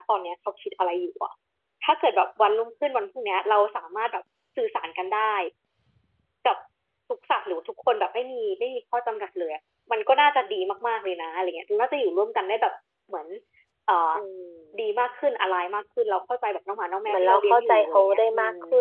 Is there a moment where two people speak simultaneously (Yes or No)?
Yes